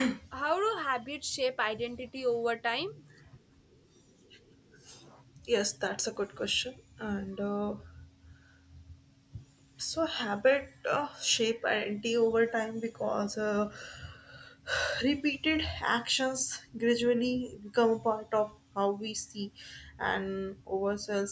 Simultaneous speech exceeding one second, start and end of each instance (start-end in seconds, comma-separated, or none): none